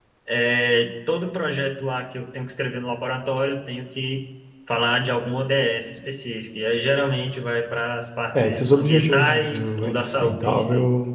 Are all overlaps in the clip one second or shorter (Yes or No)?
No